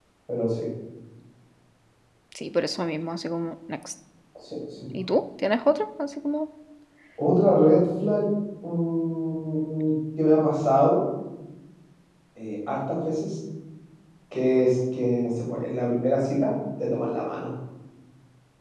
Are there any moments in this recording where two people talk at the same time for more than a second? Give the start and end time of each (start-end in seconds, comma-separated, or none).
none